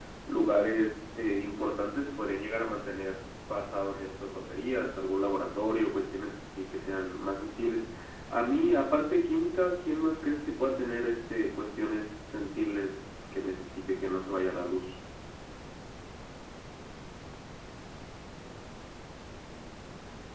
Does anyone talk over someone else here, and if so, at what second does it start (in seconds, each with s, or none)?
none